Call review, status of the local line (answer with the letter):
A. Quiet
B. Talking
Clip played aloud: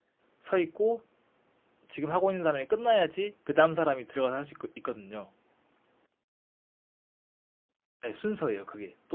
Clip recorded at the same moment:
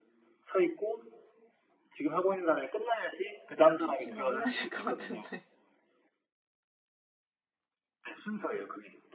B